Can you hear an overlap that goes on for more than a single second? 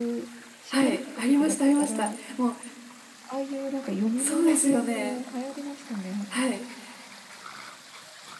Yes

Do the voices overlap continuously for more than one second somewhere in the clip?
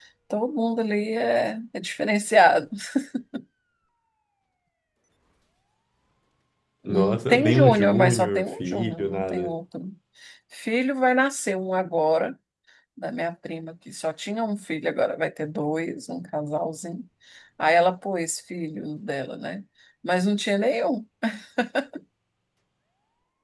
Yes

